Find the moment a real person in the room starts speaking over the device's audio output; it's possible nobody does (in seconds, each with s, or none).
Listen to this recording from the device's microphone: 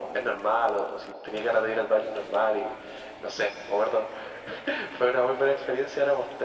none